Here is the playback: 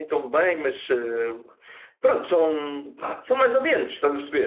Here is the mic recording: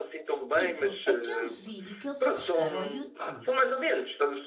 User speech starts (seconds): 0.5 s

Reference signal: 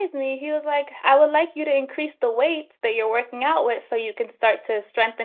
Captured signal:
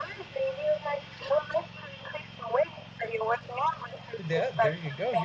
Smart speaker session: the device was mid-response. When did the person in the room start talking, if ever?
4.2 s

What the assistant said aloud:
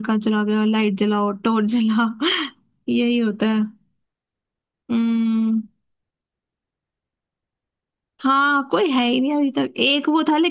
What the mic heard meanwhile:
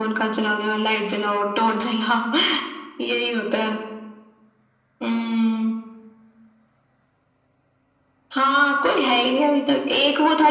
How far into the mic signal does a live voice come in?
none

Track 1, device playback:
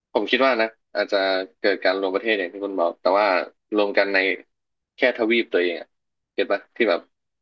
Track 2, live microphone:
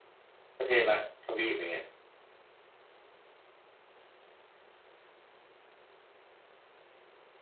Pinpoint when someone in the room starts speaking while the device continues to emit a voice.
0.6 s

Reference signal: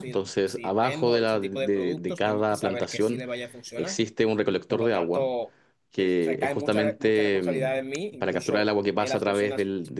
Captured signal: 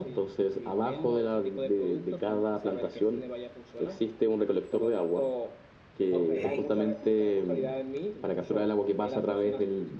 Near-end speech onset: 6.1 s

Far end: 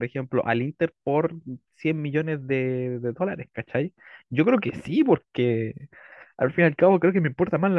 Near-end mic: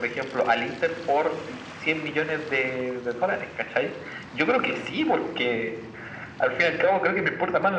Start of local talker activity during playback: none

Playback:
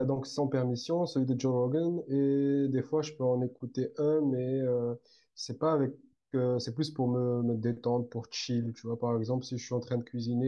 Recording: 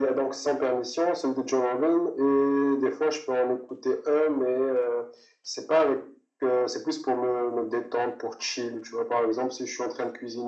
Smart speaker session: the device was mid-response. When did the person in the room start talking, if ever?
none

